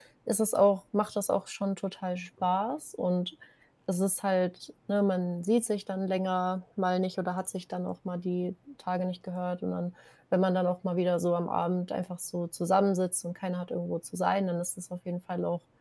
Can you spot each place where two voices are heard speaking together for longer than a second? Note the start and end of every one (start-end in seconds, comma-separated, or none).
none